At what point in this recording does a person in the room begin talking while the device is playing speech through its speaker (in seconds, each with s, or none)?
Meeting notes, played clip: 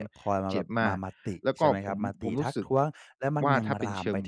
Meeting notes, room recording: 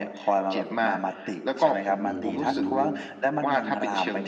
2.0 s